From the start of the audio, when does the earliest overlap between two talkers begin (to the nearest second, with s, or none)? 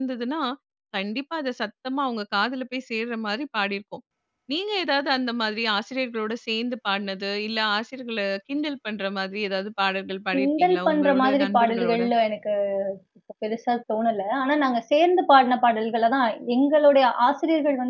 10 s